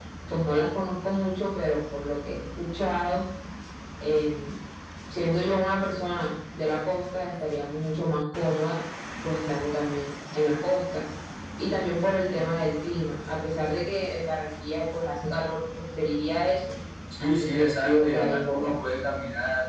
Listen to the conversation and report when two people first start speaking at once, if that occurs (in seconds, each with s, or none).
17.2 s